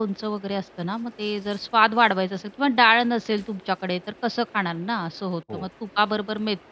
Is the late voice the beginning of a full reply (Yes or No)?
No